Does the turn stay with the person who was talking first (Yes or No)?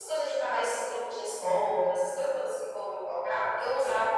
Yes